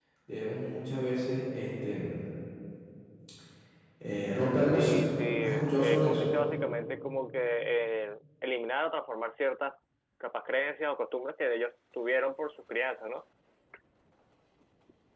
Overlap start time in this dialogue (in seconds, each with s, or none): 4.7 s